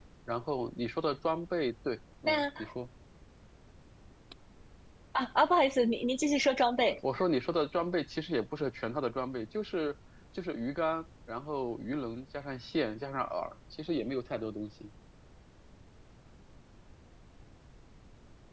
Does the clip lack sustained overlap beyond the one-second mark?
Yes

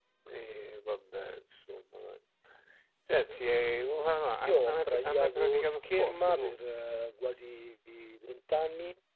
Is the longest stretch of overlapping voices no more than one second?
No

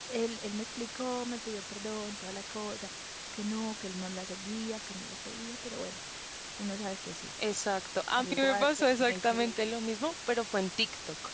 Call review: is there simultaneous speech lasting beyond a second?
Yes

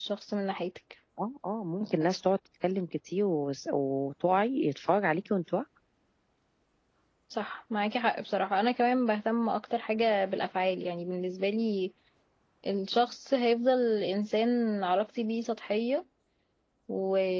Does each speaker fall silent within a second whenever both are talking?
Yes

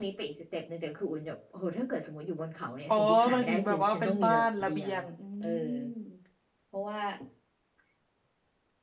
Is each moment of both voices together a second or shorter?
No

